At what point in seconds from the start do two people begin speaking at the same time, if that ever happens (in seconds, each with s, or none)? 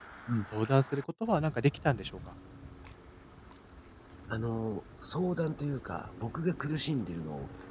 none